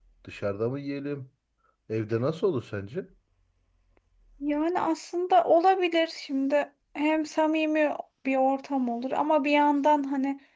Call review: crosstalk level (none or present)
none